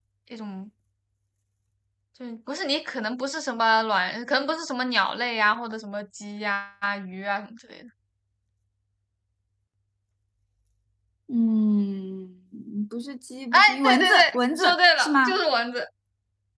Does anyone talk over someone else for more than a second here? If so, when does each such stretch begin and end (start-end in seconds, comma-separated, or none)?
13.5-15.4